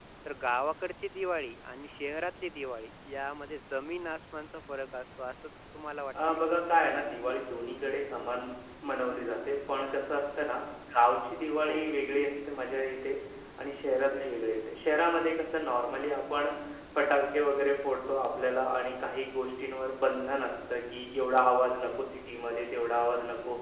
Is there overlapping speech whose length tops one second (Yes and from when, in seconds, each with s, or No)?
No